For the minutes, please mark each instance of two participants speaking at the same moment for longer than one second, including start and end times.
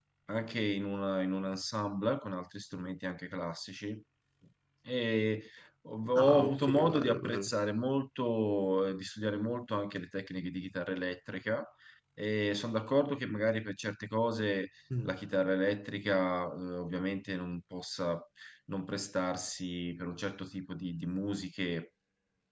6.2-7.5

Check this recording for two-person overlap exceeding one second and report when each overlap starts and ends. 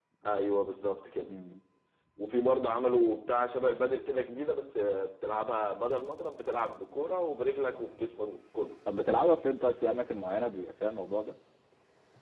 none

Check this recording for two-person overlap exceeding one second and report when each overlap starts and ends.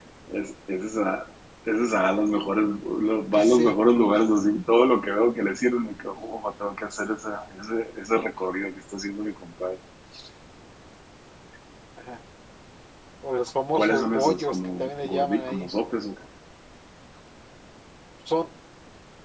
13.7-15.7

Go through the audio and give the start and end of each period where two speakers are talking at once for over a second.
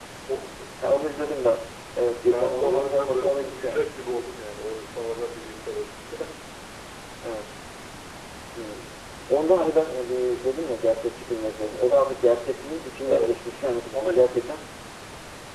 2.3-3.9

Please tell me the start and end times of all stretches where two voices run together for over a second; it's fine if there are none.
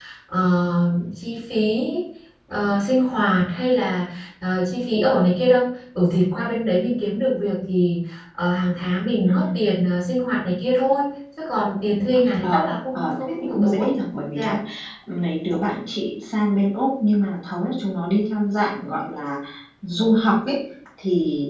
12.4-13.9

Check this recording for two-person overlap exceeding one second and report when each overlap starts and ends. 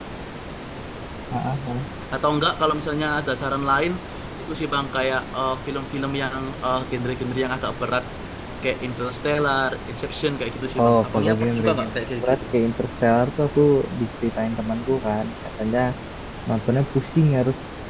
10.8-12.4

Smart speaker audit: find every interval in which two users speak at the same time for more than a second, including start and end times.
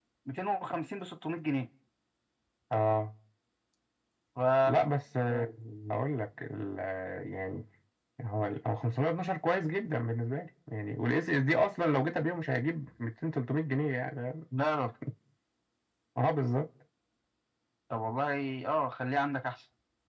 none

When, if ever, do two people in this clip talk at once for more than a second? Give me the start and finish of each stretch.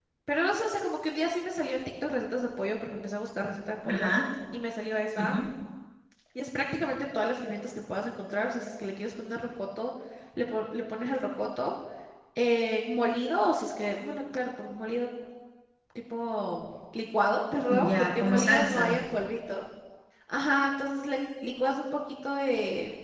17.7-19.0

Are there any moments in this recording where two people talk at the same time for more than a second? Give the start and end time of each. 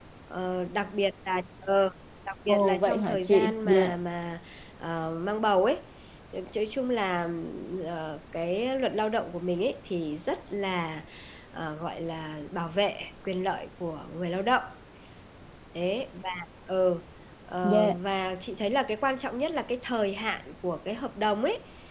2.5-3.9

